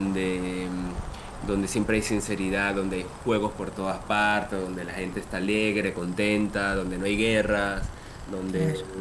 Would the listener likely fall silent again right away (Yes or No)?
Yes